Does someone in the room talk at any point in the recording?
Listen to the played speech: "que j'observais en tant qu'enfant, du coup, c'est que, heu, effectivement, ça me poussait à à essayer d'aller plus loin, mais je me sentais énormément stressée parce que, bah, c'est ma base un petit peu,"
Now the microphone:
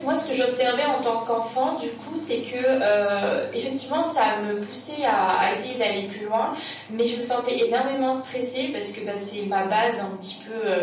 No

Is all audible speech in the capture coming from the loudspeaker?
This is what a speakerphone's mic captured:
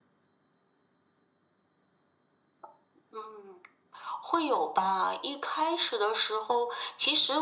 Yes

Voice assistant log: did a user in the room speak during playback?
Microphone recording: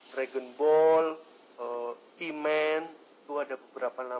No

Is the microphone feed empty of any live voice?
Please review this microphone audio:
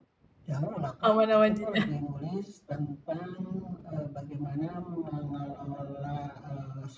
No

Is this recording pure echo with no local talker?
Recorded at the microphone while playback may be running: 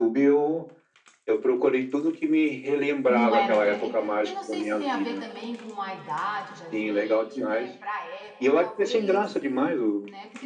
No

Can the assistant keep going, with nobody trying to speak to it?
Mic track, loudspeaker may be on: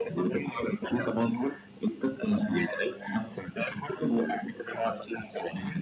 Yes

